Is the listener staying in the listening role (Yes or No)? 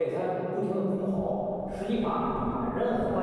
Yes